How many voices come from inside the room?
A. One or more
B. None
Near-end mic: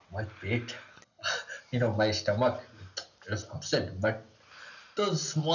B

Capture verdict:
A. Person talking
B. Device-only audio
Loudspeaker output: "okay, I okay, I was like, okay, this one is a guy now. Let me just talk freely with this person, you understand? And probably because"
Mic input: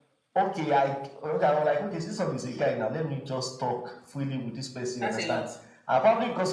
A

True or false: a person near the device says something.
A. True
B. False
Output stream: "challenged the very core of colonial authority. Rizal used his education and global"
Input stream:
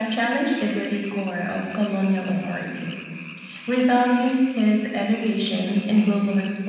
B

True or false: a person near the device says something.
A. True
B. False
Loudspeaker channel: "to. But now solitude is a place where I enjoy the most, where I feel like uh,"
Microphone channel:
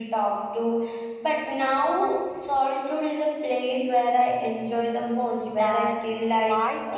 A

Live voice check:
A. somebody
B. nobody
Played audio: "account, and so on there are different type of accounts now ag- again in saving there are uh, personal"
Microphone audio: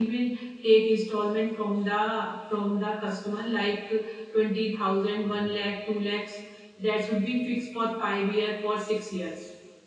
A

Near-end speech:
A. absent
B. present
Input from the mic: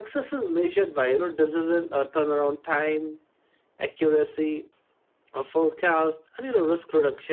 A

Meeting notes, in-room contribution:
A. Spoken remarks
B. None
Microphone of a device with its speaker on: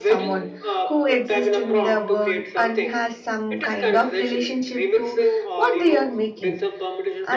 A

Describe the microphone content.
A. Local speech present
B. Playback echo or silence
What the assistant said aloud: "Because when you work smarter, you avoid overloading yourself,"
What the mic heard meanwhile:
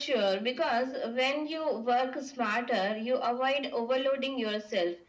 B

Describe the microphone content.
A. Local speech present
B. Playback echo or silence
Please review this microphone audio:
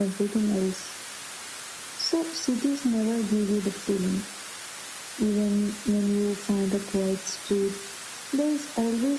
B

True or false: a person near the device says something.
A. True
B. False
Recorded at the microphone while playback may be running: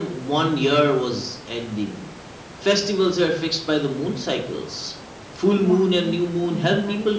A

